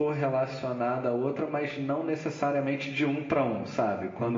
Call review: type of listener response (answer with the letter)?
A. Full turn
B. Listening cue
B